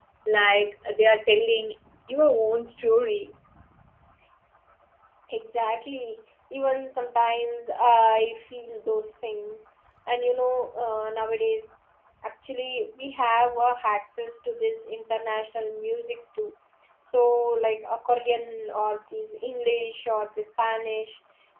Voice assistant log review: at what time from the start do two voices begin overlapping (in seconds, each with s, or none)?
none